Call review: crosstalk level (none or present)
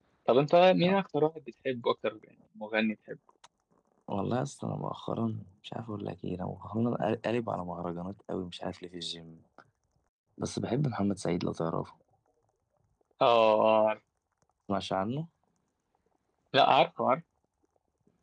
none